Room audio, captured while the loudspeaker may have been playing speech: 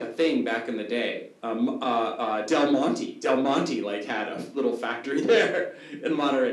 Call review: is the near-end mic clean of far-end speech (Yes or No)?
No